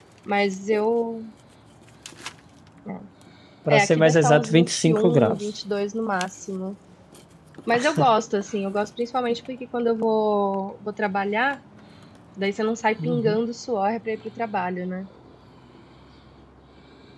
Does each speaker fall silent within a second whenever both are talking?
No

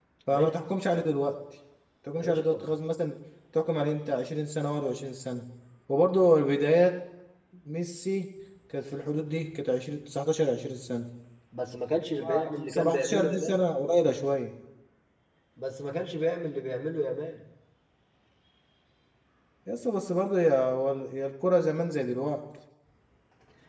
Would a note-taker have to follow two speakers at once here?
Yes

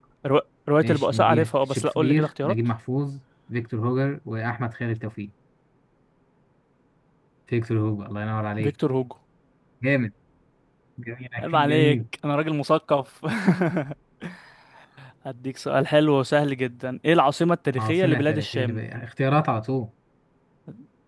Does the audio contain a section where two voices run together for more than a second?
Yes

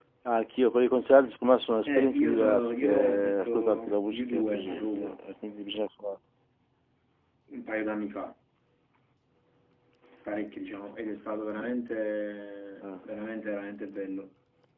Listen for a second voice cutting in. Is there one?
Yes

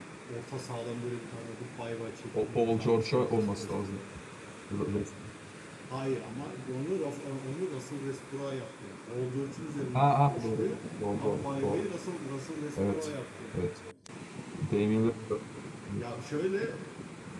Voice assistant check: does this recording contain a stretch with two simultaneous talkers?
Yes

